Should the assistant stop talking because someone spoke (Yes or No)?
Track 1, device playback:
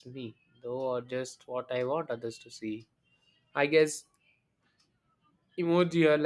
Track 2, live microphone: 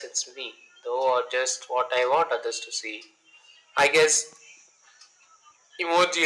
No